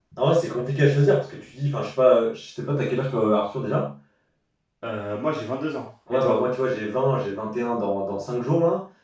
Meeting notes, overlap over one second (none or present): none